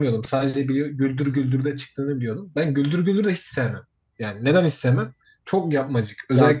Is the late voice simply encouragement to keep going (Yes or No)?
Yes